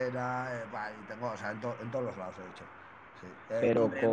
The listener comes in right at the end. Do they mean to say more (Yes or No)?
No